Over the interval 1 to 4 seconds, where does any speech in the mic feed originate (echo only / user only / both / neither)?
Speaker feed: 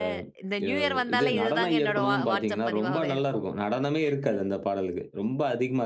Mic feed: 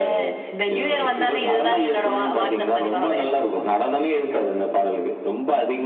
echo only